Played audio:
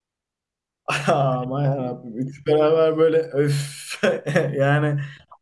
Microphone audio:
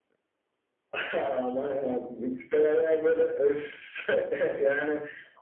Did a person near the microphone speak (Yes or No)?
No